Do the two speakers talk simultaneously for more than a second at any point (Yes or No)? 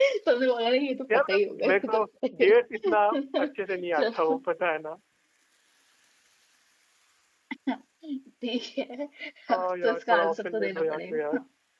Yes